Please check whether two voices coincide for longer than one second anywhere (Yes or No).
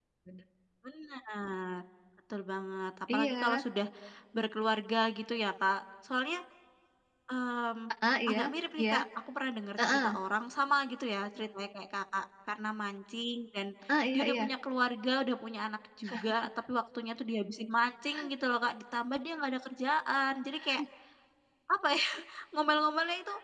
No